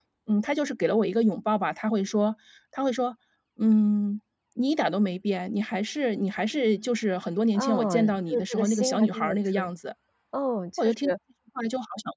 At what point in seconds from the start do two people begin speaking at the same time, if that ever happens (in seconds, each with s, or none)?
7.5 s